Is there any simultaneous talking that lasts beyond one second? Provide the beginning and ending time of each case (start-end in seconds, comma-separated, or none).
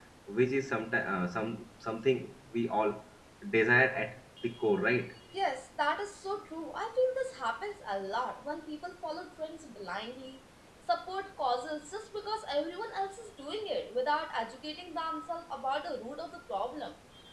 none